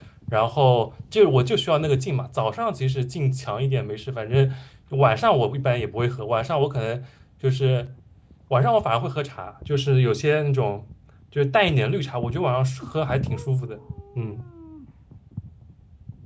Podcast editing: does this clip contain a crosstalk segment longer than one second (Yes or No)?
No